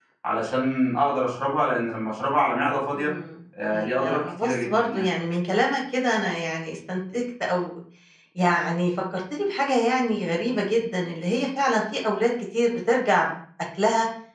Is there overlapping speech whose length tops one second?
Yes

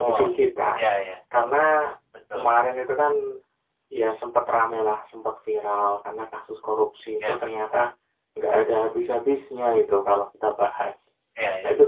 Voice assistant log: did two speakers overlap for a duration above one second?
No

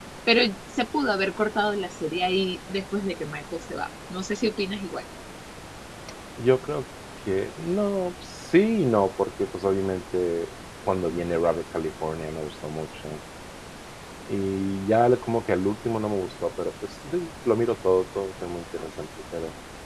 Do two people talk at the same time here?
No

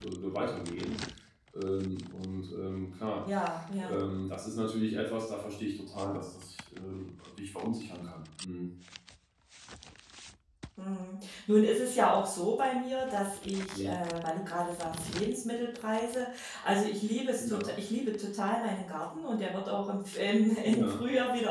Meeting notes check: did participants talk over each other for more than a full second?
No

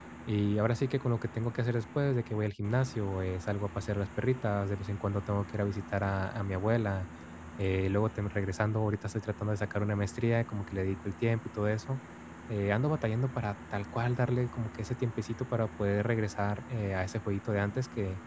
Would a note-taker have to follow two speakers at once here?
No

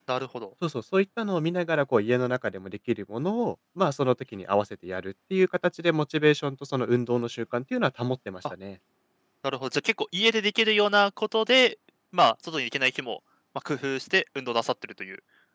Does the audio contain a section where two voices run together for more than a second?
No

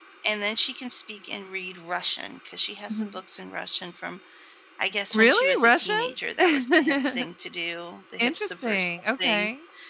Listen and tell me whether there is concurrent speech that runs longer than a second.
Yes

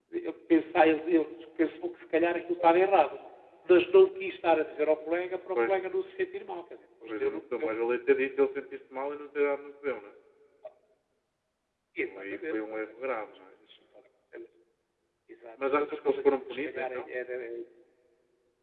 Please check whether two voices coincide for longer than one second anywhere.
Yes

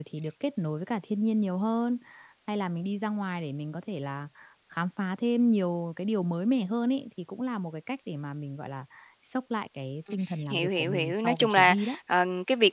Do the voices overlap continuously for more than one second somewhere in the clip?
Yes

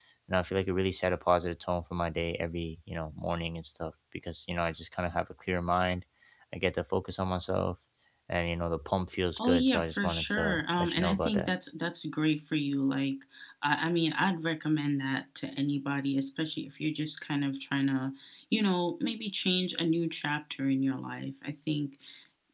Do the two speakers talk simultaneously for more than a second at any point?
Yes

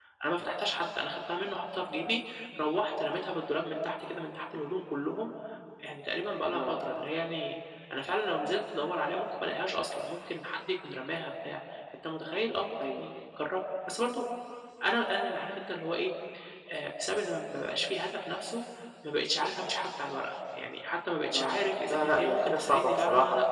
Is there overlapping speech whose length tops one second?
Yes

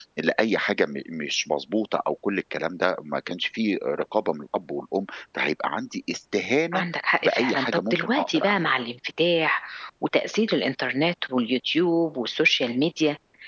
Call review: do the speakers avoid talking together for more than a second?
No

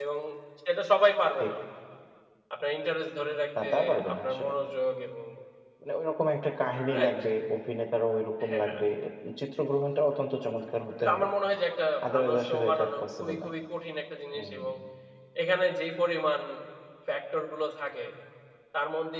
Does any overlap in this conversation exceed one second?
Yes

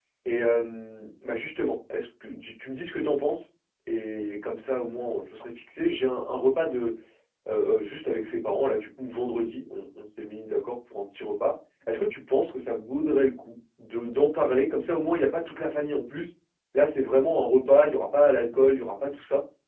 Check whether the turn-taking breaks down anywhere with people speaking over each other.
No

